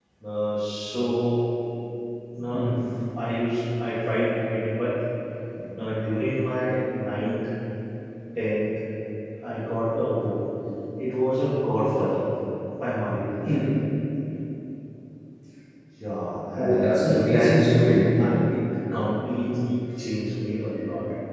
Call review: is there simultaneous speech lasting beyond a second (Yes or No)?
Yes